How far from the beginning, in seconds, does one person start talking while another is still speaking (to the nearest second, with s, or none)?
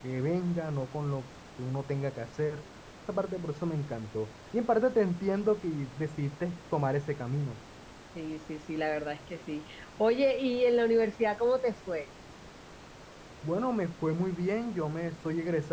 none